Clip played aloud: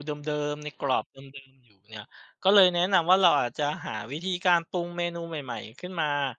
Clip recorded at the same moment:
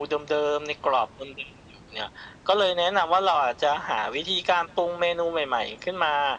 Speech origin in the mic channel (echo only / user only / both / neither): echo only